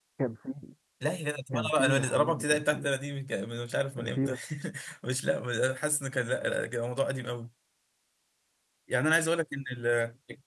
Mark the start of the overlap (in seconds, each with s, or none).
1.5 s